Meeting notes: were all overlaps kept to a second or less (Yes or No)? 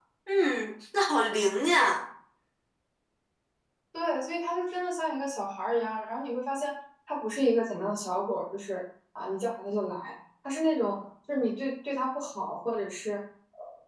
Yes